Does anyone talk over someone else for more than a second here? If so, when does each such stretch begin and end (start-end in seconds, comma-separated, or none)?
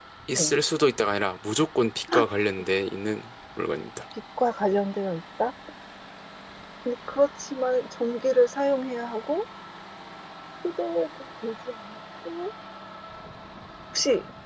none